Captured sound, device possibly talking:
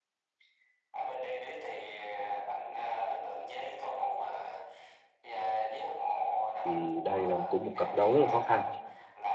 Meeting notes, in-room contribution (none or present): present